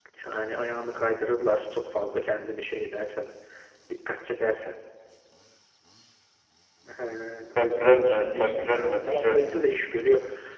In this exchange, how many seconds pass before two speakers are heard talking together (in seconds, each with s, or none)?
7.6 s